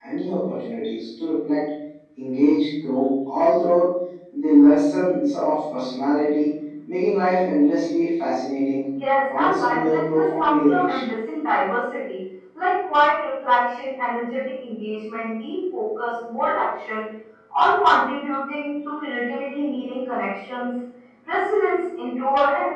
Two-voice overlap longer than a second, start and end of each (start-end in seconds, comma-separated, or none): 9.3-11.0